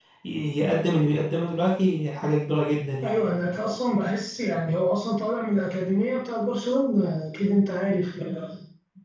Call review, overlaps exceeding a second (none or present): none